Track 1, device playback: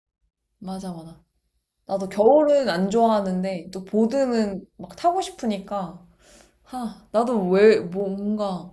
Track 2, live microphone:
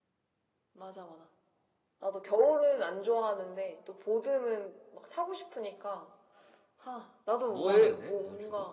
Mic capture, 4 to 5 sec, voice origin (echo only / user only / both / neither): echo only